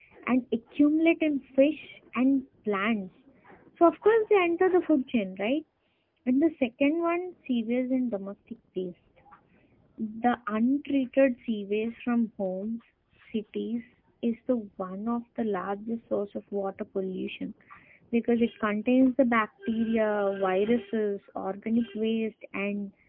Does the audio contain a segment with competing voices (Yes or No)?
No